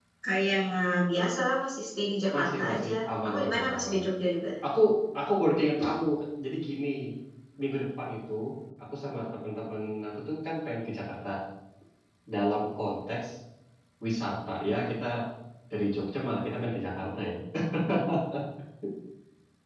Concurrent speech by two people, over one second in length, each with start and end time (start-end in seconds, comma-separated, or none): 2.3-4.0